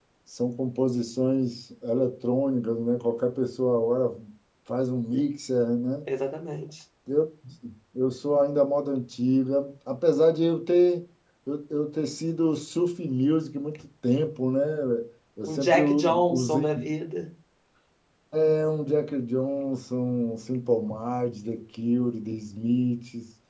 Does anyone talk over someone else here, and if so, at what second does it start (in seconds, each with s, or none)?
15.4 s